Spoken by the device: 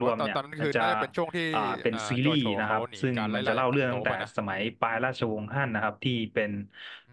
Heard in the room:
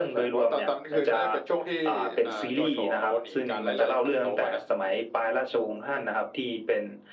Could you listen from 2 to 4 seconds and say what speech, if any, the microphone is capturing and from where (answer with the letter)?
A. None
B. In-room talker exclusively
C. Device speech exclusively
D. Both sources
C